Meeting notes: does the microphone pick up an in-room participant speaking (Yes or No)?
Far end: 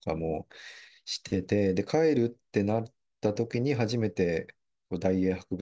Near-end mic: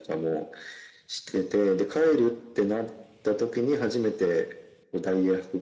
No